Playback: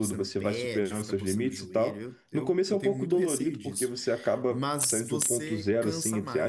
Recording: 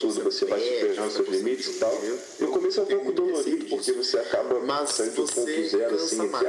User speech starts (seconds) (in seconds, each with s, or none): none